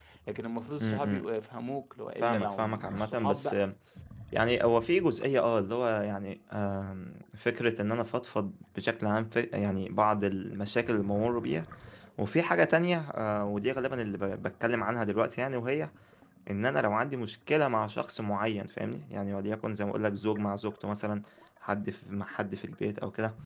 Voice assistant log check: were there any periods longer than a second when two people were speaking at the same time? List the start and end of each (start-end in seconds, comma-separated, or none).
2.2-3.6